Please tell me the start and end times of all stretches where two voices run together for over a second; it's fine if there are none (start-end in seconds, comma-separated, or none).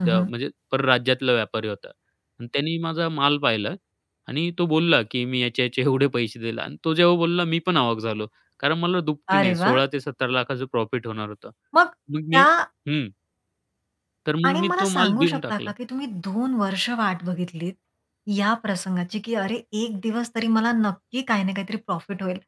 14.5-15.7